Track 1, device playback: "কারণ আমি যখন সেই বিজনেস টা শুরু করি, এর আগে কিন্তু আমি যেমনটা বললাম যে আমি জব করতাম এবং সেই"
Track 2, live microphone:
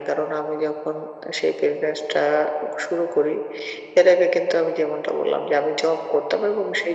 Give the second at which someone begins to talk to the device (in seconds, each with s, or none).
none